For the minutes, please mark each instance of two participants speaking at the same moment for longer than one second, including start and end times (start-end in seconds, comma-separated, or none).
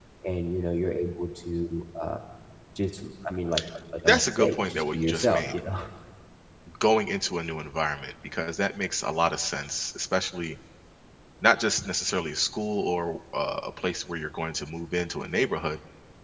4.1-5.6